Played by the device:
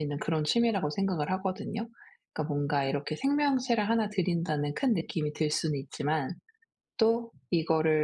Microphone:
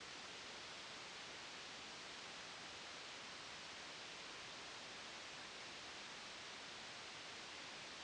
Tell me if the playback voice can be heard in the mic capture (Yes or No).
No